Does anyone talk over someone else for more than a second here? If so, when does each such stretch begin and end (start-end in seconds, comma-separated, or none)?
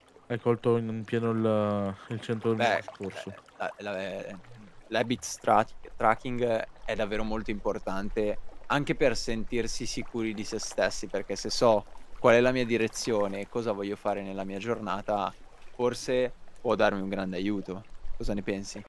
none